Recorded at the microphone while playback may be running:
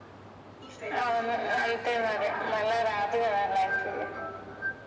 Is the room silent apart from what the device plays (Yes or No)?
Yes